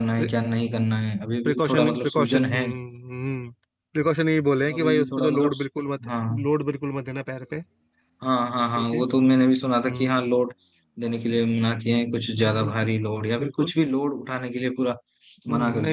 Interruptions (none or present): present